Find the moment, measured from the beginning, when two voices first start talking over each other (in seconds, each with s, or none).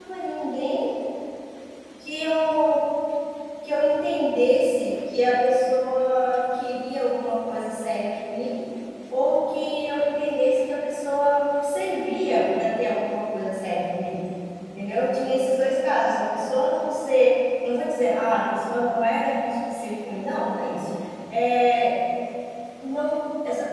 none